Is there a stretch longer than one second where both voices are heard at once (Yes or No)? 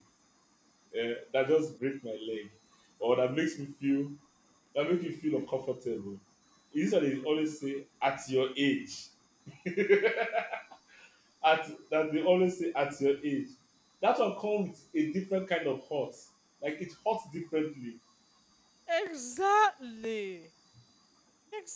No